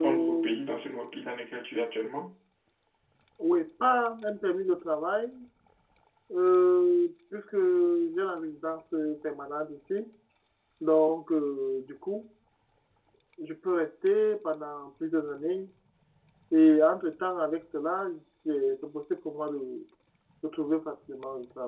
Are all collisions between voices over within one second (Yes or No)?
Yes